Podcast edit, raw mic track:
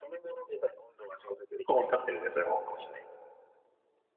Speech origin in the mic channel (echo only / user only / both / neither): both